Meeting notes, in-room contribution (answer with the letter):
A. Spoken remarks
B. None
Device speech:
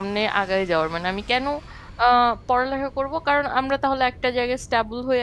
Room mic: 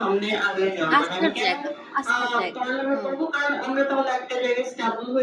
A